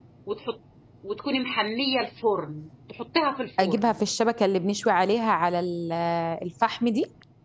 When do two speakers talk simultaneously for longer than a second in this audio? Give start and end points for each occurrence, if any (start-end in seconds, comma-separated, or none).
none